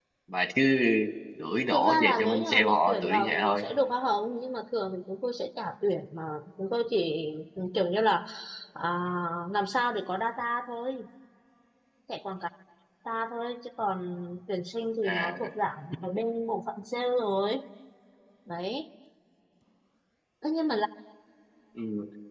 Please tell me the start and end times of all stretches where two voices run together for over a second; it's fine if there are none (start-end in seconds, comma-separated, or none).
1.7-3.6